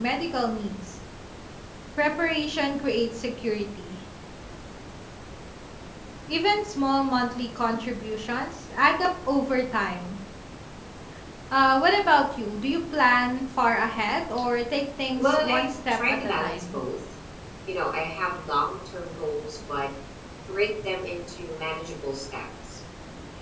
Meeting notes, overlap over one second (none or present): present